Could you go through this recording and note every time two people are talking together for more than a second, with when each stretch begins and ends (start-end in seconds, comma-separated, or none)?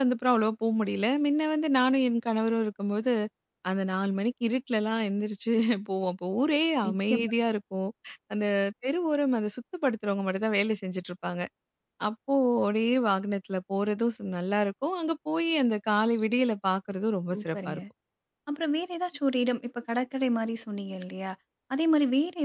none